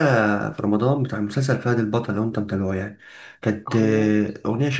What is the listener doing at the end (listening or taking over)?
listening